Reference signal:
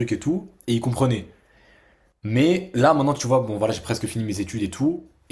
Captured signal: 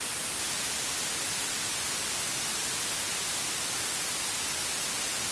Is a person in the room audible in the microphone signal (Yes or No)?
No